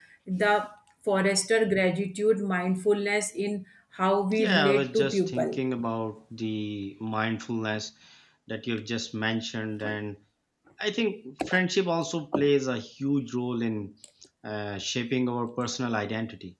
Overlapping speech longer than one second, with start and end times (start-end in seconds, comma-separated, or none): 4.3-5.6